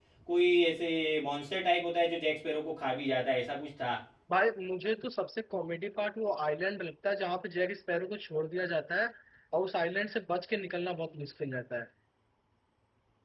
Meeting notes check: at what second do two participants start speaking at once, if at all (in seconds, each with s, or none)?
none